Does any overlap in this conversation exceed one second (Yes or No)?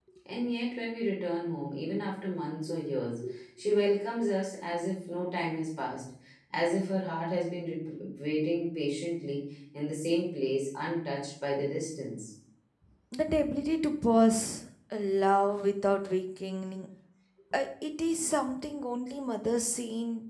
No